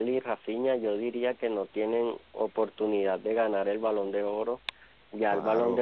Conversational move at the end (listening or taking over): listening